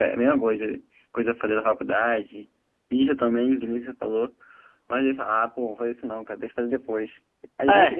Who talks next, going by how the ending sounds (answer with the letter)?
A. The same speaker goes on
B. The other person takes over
A